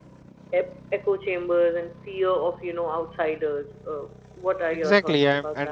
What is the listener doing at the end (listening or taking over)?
taking over